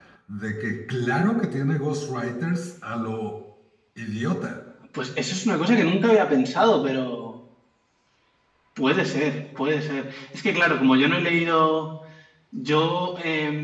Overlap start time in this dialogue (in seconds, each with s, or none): none